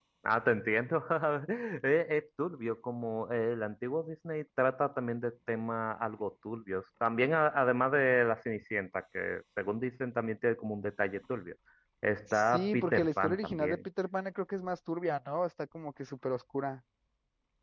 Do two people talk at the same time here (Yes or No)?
Yes